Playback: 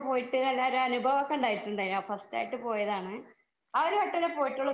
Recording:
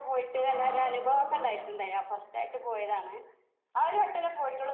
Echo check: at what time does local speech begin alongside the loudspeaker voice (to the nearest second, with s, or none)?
0 s